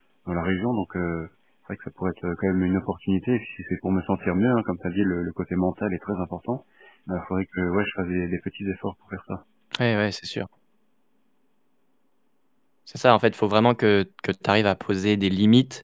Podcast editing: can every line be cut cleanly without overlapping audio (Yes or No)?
Yes